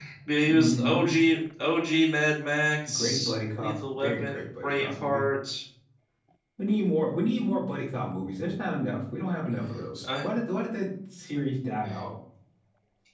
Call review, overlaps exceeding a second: present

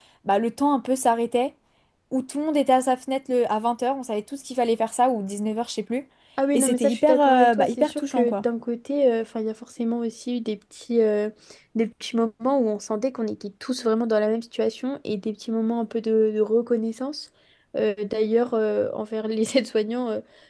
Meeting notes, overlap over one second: present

